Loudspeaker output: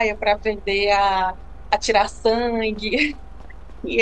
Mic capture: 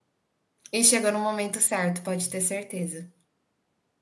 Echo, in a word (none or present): none